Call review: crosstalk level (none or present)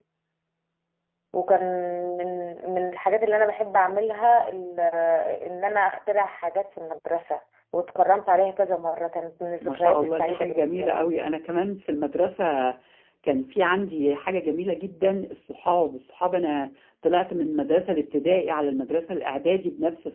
present